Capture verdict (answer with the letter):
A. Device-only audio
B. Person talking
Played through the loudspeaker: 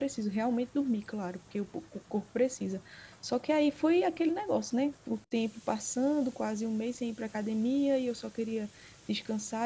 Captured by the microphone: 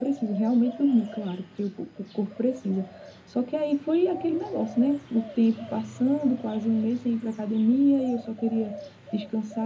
A